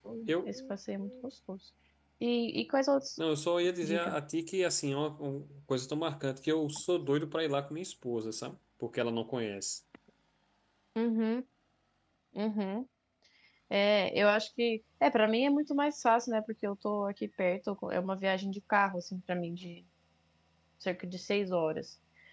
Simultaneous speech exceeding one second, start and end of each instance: none

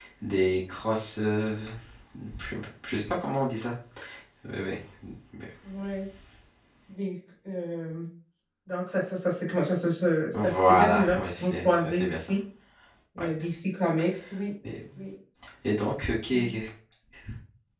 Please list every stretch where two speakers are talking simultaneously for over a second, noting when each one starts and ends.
10.3-12.3

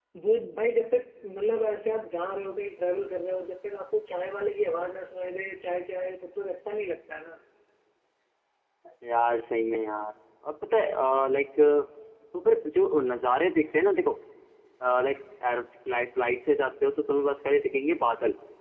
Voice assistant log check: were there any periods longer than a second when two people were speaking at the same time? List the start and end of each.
none

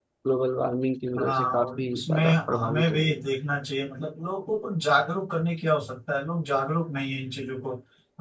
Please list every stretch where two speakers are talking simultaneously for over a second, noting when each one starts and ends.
1.2-3.2

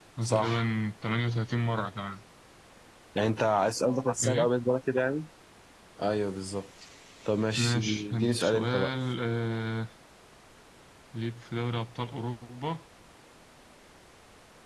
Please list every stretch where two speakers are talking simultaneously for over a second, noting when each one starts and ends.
7.6-8.9

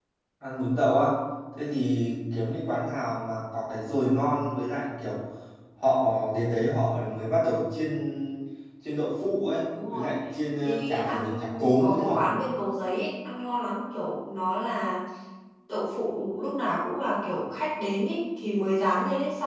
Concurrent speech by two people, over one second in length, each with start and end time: 10.6-12.2

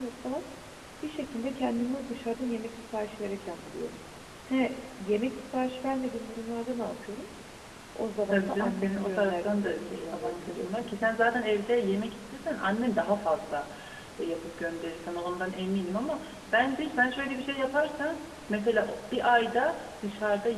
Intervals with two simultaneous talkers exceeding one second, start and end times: 8.3-11.1

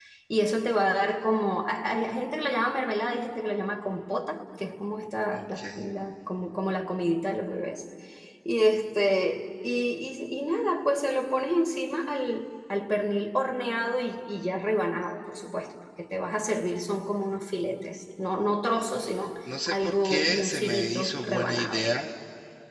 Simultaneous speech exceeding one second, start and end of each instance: 19.7-21.8

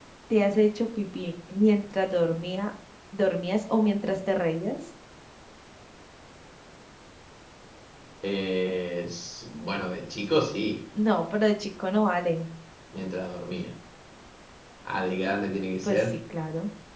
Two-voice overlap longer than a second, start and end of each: none

